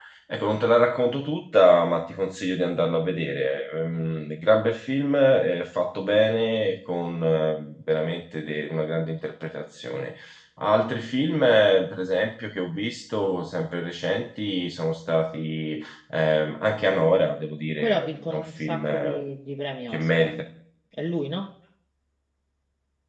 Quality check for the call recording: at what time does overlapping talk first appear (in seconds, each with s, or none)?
17.8 s